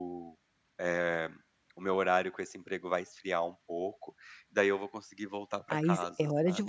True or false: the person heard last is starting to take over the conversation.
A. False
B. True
B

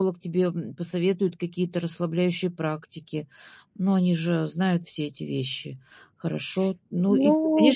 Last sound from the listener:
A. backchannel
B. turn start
A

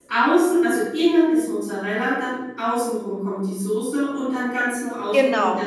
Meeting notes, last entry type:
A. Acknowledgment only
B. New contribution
A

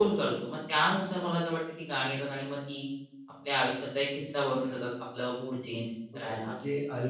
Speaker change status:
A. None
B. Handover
B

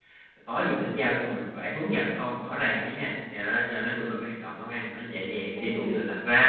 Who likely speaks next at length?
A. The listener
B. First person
B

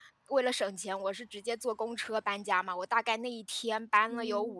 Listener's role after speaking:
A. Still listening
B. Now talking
A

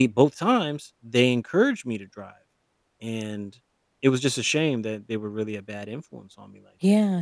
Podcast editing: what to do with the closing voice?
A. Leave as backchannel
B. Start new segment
B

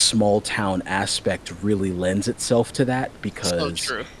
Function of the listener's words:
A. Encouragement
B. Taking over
A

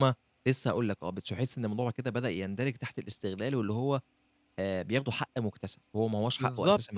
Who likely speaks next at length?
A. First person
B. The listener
B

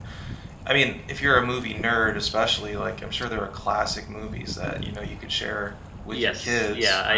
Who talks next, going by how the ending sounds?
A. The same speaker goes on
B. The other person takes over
B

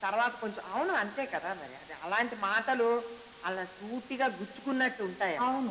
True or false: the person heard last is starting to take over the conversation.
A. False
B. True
B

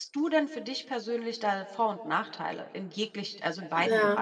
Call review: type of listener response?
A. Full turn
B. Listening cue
A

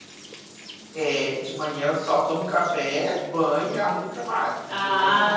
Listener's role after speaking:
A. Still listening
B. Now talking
B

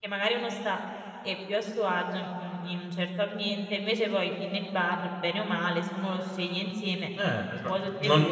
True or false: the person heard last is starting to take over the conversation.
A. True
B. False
A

